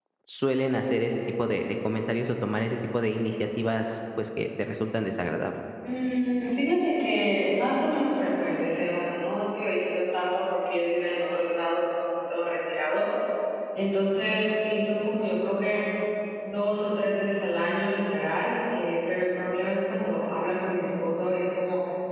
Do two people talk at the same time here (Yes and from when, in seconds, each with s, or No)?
No